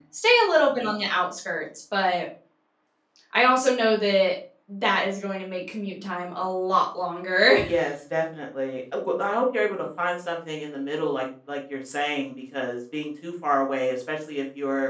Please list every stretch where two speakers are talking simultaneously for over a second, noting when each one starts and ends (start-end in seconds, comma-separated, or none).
none